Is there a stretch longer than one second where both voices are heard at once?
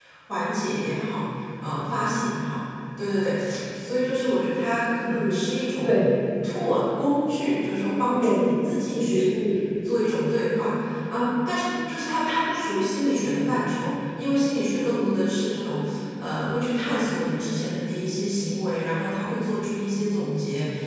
No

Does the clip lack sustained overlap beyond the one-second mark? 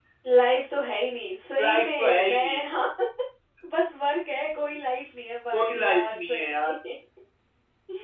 No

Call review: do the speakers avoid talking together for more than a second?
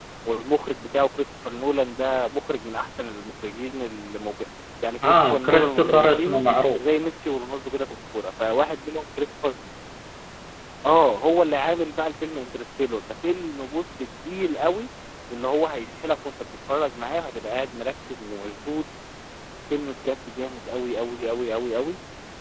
No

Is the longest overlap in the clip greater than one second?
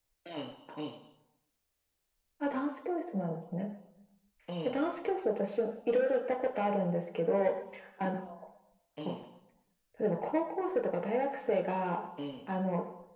No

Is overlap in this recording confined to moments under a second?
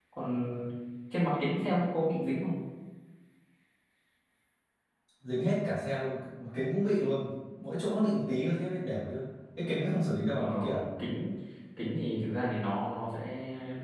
Yes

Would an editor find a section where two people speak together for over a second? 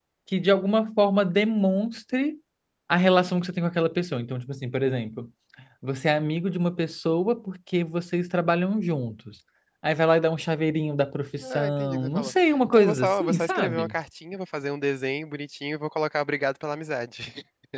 Yes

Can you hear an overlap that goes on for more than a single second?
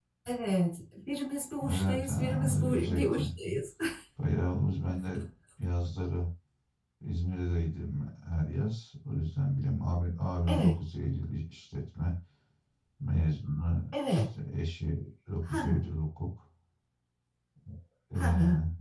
Yes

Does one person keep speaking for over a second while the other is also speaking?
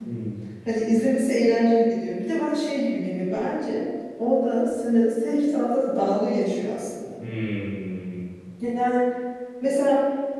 No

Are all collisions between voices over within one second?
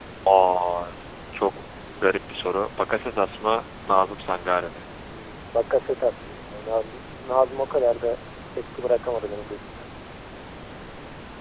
Yes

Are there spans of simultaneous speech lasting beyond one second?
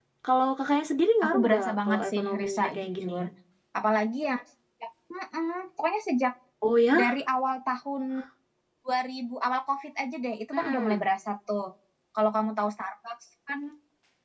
Yes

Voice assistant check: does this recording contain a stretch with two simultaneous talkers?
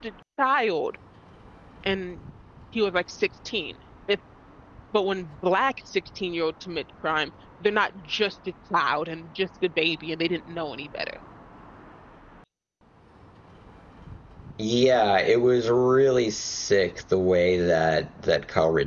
No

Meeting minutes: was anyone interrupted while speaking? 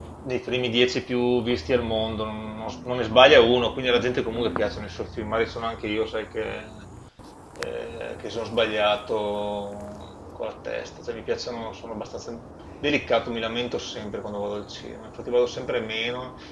No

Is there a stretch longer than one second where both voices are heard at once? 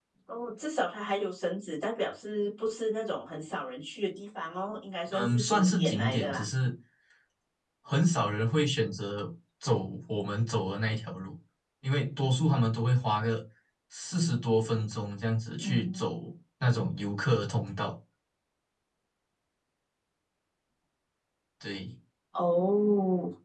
Yes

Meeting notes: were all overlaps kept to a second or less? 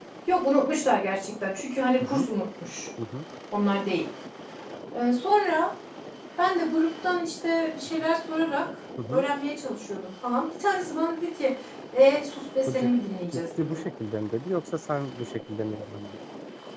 Yes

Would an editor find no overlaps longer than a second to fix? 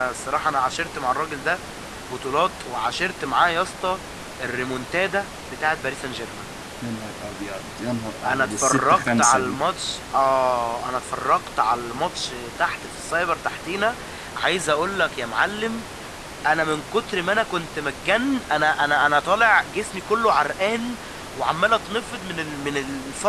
No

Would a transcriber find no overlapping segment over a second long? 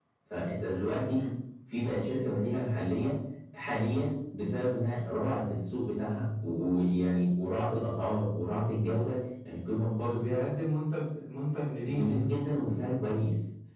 Yes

